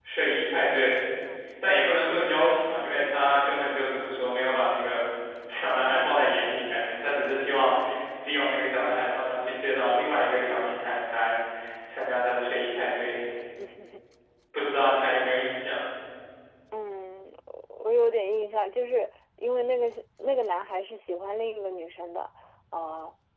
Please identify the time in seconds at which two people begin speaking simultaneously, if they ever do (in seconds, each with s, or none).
none